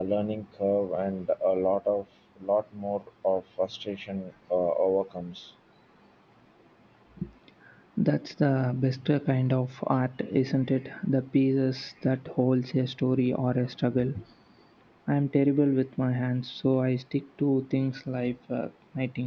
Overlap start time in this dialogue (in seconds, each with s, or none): none